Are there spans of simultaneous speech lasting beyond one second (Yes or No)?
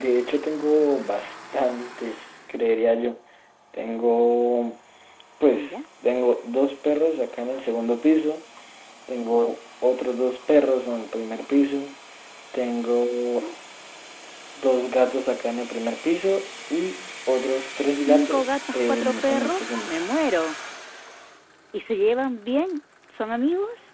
Yes